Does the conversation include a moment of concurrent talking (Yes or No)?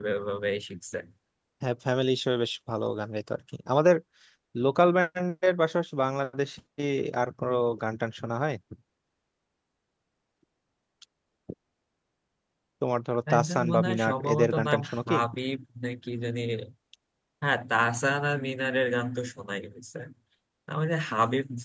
Yes